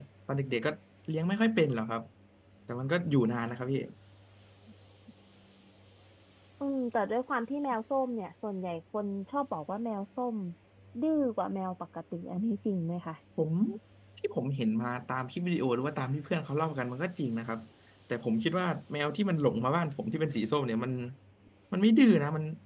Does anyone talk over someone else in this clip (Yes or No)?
No